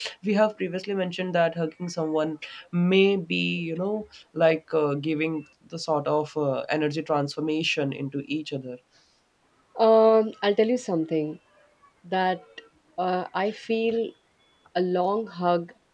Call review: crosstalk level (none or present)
none